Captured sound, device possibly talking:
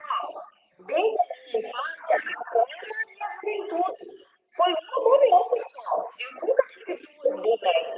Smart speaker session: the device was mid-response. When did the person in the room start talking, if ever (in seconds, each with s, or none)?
none